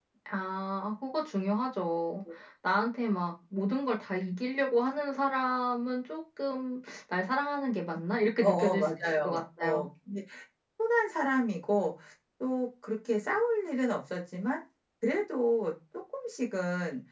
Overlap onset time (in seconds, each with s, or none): 8.4 s